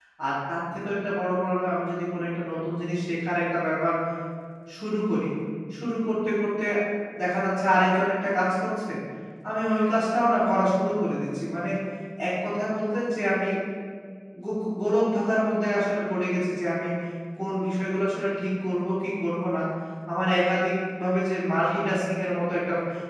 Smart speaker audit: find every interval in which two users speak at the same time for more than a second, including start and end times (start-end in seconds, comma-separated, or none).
none